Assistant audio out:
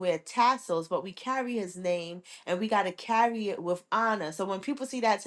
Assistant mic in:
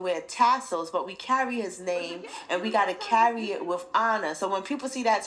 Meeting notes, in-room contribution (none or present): present